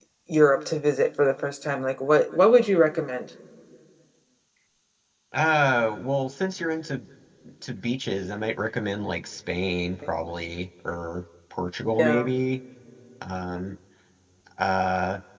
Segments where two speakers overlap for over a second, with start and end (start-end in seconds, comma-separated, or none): none